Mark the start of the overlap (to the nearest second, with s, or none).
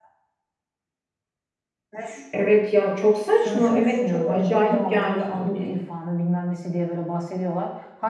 3 s